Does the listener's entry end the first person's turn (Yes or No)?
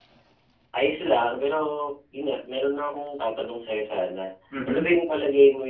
No